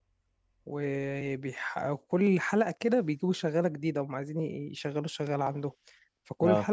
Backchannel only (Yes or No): Yes